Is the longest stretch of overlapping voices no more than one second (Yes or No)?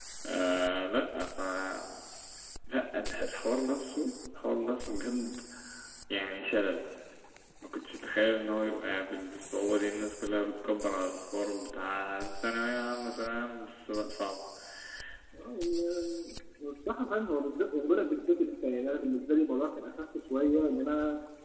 Yes